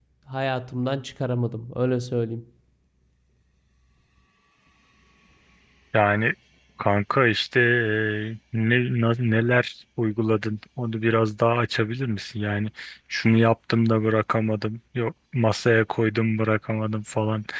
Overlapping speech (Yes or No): No